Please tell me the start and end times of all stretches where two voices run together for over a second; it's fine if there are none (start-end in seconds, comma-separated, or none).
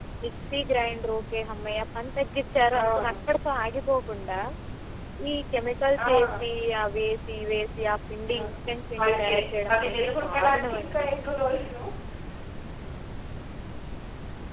9.7-11.1